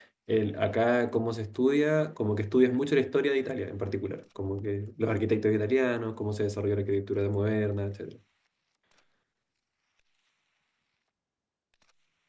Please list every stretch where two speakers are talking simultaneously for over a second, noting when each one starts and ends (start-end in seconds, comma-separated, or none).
none